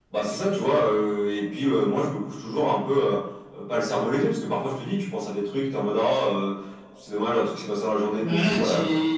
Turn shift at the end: Yes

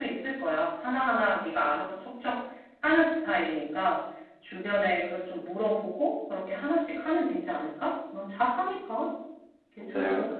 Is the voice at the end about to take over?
Yes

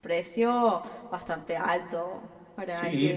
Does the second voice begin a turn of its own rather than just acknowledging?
Yes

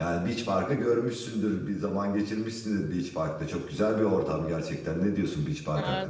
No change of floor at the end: No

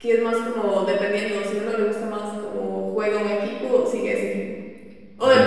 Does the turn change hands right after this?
No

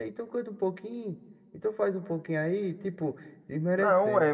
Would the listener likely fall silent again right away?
No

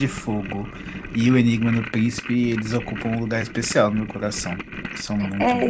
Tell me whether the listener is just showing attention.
No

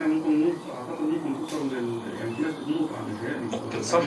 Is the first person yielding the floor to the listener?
Yes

